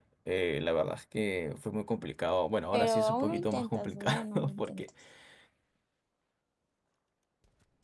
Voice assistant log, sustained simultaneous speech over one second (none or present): present